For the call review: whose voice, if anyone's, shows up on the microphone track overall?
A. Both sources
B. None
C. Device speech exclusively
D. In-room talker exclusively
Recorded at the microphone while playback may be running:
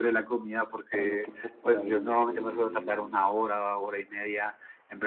A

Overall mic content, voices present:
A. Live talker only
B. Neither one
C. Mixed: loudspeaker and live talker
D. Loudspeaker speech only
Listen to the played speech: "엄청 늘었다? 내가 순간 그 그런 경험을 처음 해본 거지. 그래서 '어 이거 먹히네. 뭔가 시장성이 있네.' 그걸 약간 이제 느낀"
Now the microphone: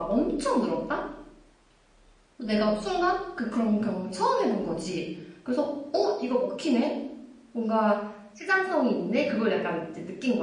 D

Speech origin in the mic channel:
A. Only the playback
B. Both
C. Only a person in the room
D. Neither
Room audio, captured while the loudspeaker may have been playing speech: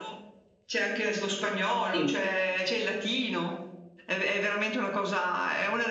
B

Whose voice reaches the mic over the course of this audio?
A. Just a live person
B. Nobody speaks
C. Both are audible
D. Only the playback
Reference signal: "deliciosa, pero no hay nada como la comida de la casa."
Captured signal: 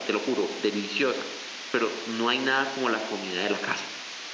D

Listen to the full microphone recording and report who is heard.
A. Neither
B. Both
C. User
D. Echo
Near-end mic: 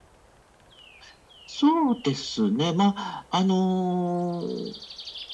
D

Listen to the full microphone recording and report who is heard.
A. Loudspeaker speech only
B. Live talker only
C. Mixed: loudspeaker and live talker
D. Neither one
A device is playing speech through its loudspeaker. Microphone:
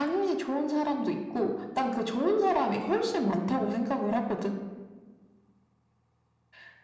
A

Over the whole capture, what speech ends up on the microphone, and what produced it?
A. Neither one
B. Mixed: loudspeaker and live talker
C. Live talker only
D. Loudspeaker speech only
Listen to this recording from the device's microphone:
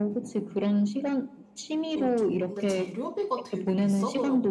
B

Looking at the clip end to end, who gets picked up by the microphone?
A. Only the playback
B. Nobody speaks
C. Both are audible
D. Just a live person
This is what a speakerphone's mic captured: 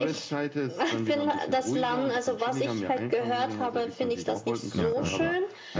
C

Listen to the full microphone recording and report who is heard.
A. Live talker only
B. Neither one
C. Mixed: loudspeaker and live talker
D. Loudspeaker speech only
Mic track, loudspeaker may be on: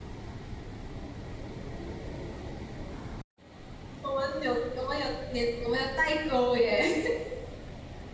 A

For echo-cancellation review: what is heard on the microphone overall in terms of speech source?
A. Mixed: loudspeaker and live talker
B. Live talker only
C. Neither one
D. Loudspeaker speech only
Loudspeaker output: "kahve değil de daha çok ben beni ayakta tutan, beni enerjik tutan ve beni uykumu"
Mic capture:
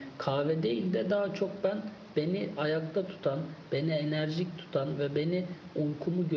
D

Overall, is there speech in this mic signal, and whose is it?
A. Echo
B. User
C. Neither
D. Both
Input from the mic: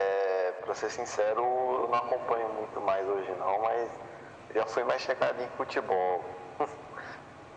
A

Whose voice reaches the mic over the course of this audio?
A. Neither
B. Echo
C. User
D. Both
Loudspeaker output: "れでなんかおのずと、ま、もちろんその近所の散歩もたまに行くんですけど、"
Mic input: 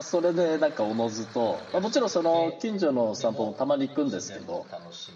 D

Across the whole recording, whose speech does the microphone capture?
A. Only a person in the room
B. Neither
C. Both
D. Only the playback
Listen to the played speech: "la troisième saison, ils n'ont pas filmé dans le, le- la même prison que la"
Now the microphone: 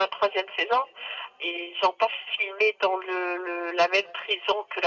D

